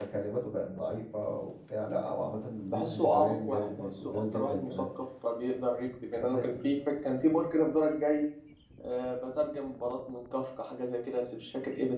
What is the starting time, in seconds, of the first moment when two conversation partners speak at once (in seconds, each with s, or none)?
2.7 s